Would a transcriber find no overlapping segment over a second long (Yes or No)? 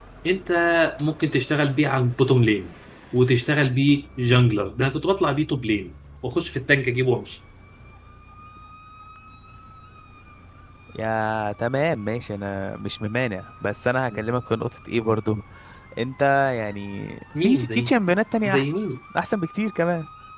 Yes